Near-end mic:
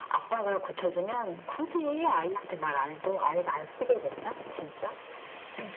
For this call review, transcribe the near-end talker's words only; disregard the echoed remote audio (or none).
none